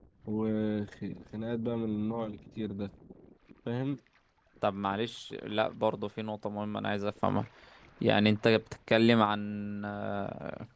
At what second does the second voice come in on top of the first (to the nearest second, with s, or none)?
none